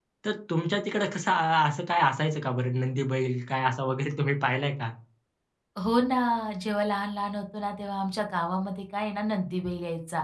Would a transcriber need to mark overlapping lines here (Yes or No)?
No